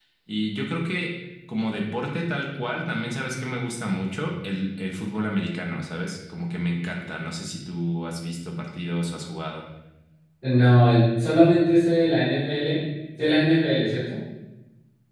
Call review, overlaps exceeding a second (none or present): none